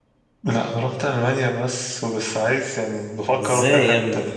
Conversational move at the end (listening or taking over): taking over